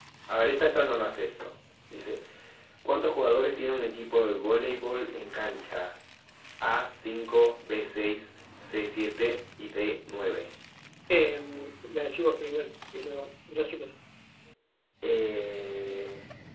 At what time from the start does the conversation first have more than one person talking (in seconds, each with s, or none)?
none